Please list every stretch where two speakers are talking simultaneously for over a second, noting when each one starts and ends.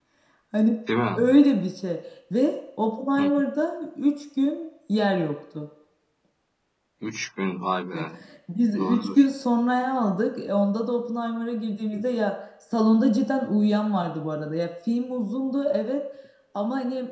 none

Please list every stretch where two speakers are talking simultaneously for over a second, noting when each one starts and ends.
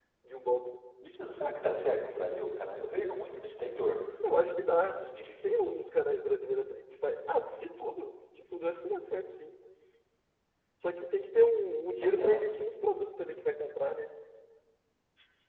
none

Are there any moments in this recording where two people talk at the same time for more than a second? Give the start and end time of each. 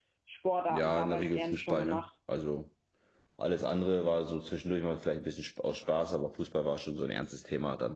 0.7-2.0

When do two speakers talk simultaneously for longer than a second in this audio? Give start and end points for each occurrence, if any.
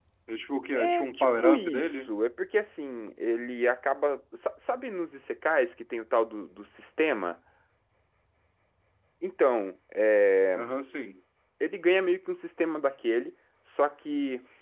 0.7-2.1

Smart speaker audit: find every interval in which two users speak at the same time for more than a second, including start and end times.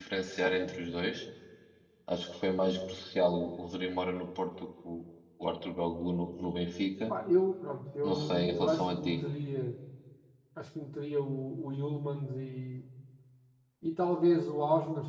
8.0-9.2

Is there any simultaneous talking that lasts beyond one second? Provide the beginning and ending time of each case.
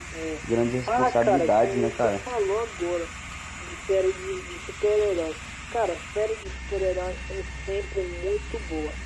0.9-2.2

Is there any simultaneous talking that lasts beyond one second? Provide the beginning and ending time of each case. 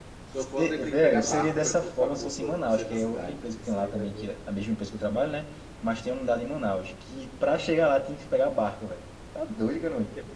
0.6-4.3

